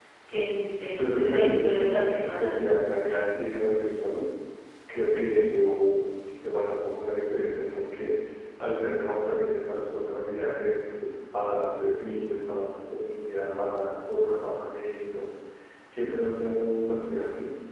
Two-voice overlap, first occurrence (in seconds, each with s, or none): 1.0 s